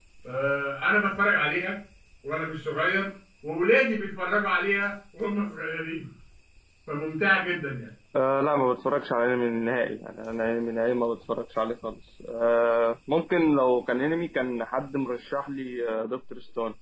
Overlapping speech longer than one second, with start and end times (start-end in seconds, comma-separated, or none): none